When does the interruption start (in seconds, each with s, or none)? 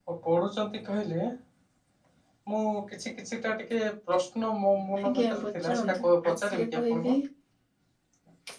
5.0 s